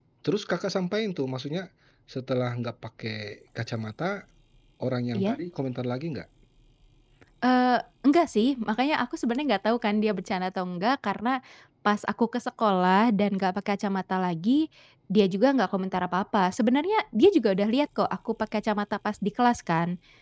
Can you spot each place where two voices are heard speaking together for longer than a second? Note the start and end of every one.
none

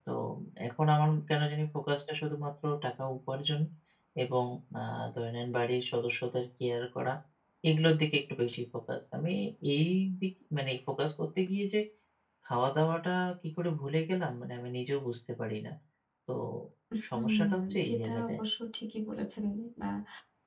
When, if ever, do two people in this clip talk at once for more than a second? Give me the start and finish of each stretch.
17.1-18.4

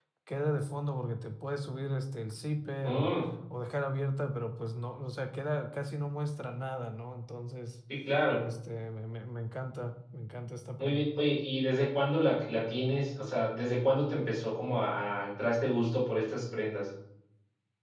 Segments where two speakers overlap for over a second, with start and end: none

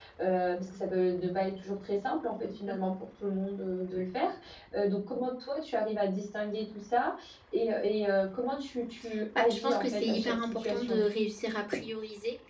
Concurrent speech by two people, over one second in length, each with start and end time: 9.4-11.0

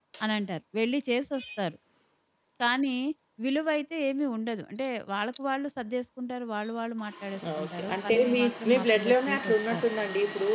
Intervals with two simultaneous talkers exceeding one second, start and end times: 7.6-9.8

